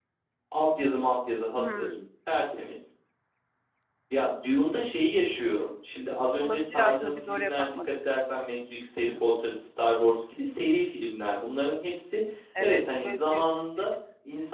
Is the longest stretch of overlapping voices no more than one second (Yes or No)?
No